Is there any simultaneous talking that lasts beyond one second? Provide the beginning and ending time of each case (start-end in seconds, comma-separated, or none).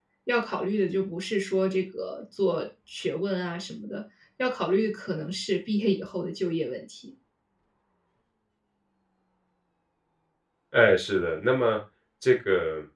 none